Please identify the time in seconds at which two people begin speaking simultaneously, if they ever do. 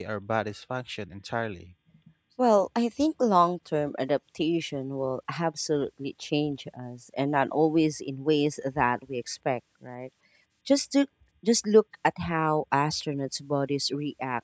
none

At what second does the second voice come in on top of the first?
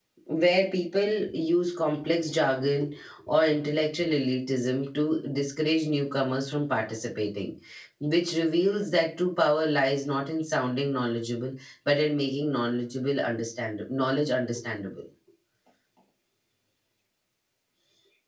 none

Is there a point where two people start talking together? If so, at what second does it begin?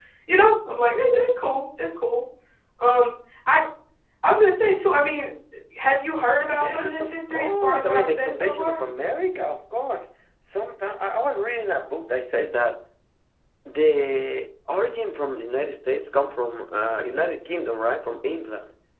6.5 s

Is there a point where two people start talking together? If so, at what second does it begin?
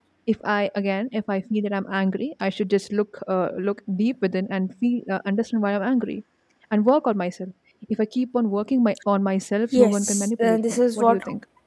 9.7 s

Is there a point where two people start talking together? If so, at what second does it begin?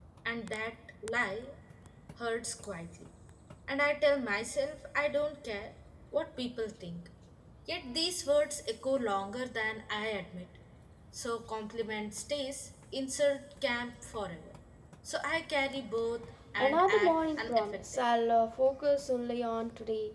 16.6 s

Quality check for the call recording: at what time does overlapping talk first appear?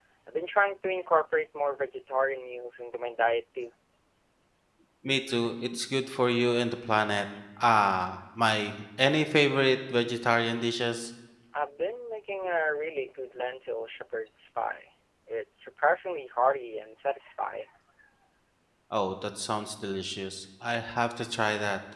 none

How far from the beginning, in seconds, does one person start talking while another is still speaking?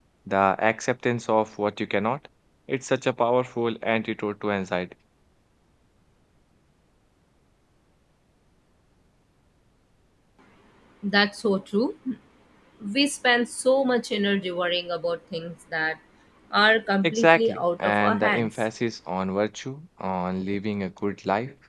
17.0 s

